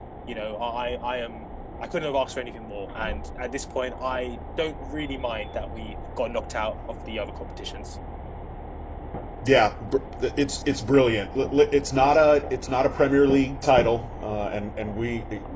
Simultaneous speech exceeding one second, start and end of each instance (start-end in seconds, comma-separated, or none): none